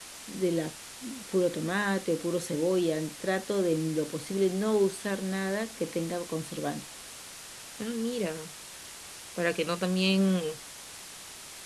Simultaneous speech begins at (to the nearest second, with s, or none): none